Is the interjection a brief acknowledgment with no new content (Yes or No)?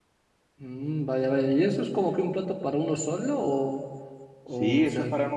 No